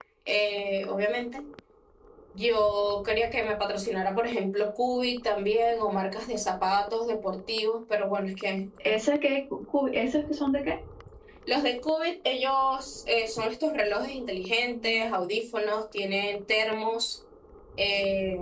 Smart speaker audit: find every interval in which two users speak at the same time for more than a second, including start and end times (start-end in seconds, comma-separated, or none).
none